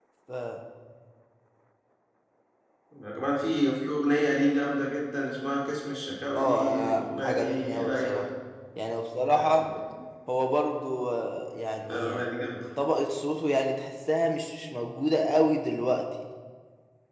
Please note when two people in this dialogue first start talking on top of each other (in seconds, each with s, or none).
6.3 s